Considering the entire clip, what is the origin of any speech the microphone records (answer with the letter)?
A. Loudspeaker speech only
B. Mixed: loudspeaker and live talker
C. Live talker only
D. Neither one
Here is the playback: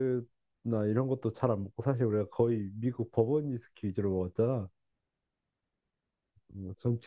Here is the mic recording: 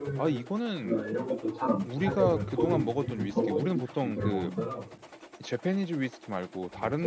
B